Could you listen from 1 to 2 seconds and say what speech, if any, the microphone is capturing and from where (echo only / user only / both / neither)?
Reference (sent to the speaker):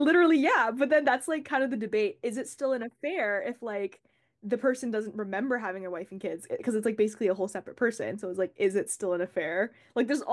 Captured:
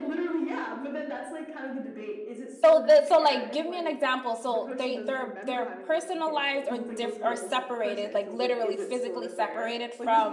echo only